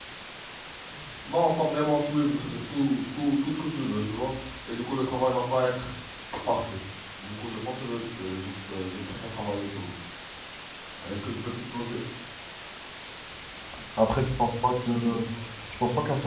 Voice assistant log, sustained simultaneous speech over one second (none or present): none